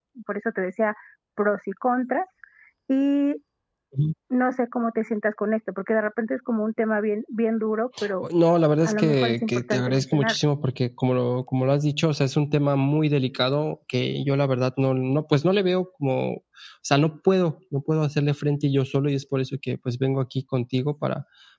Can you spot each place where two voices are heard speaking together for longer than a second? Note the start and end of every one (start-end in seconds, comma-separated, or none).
8.8-10.4